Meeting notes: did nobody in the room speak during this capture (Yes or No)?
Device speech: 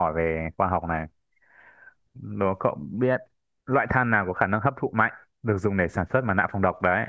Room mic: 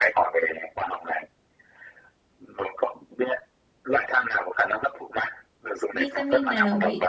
No